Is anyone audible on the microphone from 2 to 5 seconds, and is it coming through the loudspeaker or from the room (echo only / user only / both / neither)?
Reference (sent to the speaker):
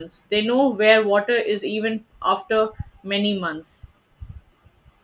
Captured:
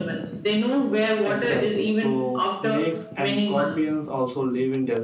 both